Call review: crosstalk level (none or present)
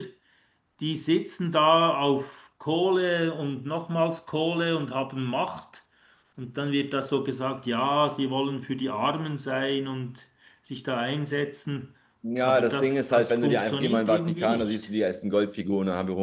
present